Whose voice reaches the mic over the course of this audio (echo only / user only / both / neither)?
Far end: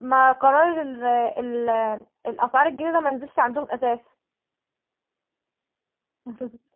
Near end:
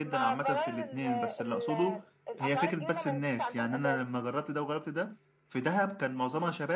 both